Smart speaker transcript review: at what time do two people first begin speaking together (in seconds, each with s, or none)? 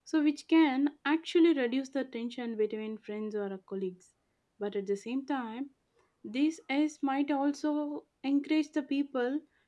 none